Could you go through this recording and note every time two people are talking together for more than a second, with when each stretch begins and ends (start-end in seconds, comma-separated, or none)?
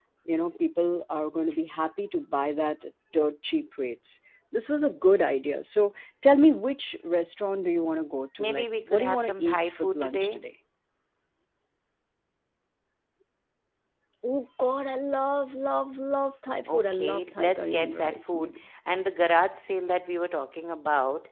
8.4-10.4, 16.7-18.5